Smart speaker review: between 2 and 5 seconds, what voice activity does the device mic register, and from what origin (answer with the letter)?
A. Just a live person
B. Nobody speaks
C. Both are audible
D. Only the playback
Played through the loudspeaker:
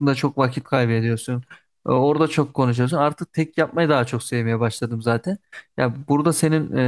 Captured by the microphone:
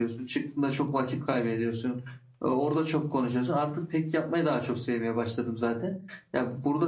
D